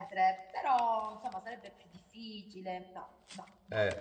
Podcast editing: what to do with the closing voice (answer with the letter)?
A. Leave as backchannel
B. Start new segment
A